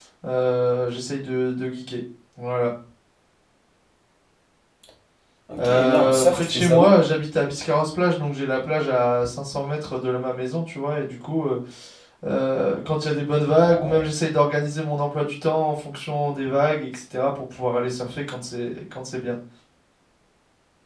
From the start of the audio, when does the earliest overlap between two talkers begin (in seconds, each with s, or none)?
5.6 s